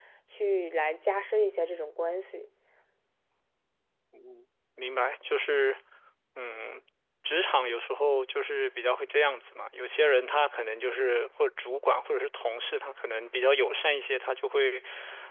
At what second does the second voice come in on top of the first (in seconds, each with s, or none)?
none